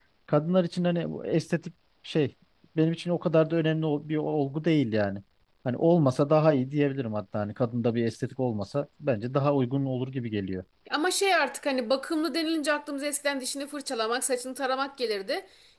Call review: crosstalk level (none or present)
none